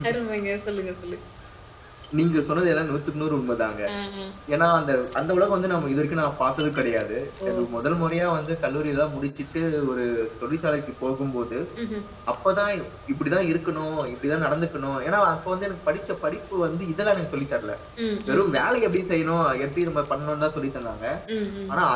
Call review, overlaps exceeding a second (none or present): none